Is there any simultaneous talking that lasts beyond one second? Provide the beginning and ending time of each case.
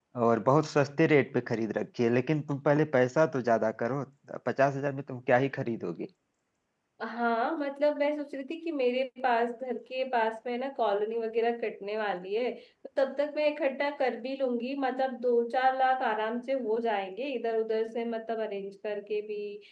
none

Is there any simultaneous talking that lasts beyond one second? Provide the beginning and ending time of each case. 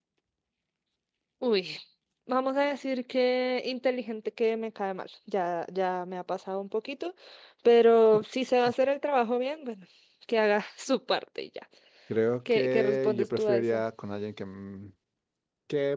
12.5-13.8

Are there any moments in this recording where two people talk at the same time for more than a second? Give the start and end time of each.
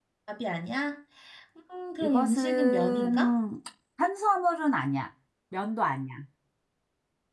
2.0-3.3

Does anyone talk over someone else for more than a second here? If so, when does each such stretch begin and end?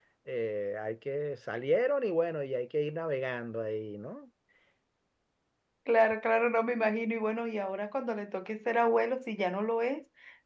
none

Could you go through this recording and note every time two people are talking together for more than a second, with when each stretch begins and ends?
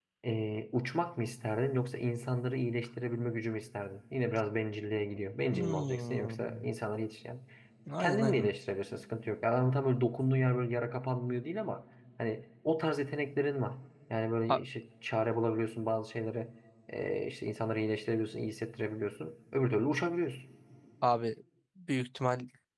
5.5-6.7

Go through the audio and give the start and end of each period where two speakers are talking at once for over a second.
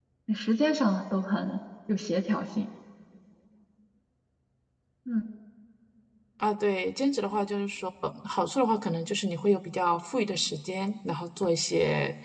none

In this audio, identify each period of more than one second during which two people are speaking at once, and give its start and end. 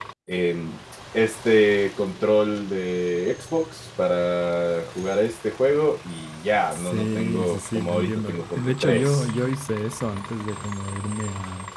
6.7-9.3

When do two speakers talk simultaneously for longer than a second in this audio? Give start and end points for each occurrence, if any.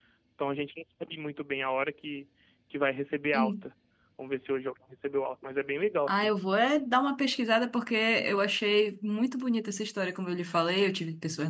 none

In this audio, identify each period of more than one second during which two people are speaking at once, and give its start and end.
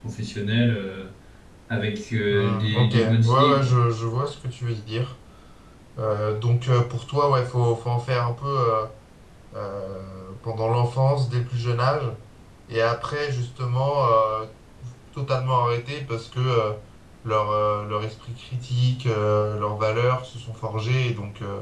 2.3-3.8

